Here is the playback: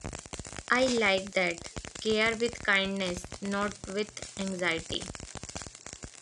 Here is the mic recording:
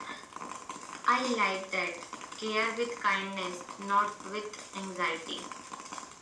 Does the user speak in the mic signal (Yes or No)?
No